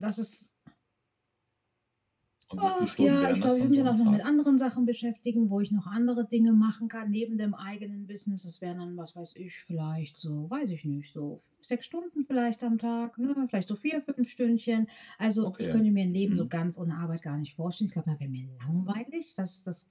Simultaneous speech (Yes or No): Yes